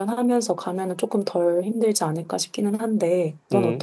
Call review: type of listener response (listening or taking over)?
taking over